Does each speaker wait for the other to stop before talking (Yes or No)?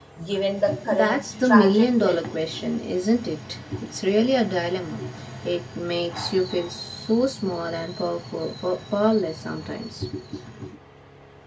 No